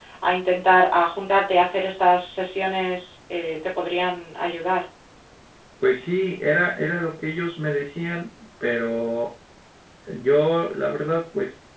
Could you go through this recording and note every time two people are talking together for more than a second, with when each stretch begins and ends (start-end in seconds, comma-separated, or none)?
none